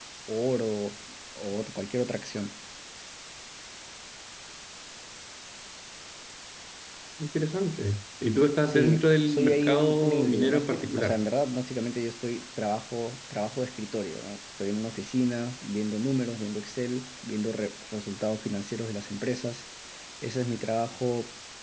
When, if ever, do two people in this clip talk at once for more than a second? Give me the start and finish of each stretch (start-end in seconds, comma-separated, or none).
8.7-11.2